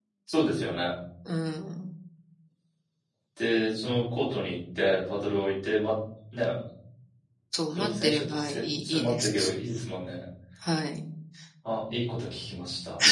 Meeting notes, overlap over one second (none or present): present